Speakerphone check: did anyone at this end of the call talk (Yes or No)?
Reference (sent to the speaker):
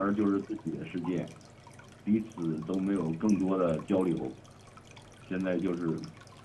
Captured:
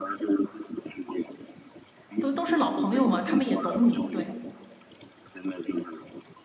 Yes